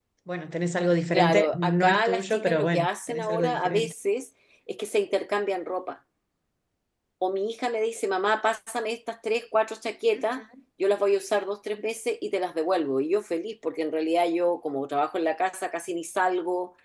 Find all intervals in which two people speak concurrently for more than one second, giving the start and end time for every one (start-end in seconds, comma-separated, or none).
1.1-3.9